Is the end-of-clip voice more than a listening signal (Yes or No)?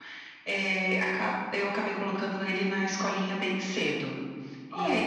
Yes